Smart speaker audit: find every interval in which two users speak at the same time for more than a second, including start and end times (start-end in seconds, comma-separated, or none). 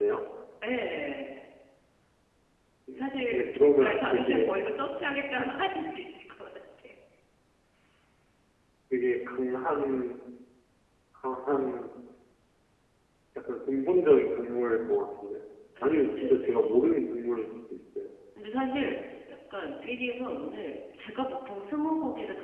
2.9-4.5